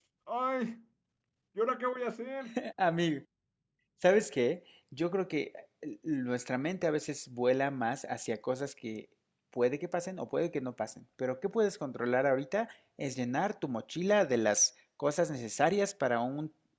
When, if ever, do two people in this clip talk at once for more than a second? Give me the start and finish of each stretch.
none

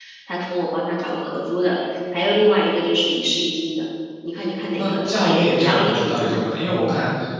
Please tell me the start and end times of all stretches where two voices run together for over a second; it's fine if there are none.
4.8-6.4

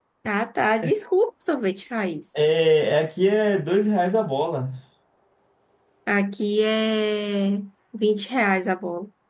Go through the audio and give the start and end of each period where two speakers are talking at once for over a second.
none

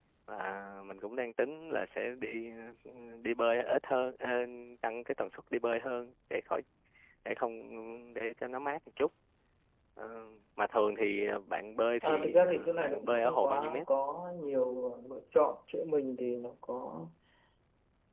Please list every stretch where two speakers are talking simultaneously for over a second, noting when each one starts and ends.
12.0-13.8

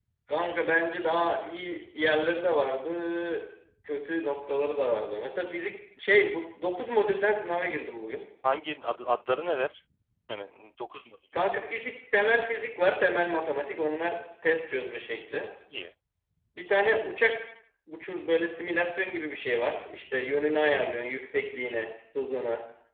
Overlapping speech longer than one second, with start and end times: none

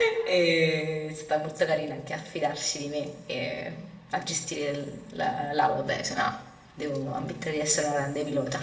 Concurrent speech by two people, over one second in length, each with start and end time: none

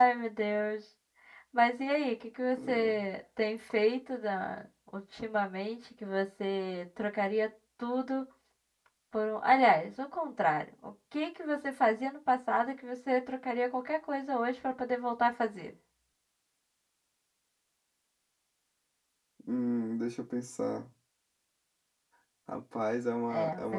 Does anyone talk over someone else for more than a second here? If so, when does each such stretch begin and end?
none

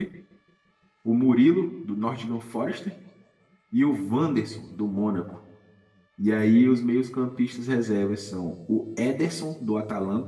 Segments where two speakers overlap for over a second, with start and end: none

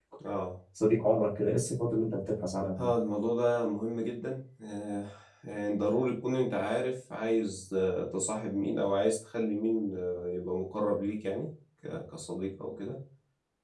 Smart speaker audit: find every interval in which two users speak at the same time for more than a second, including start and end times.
none

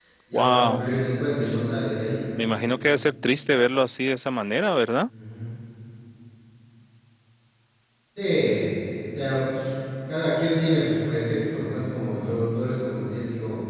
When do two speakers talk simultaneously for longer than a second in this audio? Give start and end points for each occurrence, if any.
none

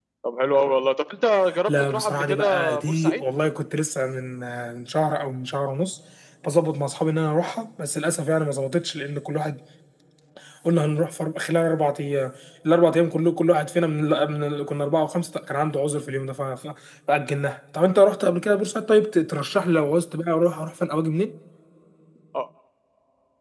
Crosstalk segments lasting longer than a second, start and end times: 1.7-3.2

